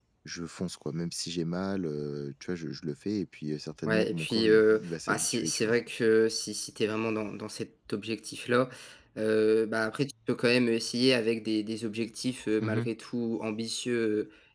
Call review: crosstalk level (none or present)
present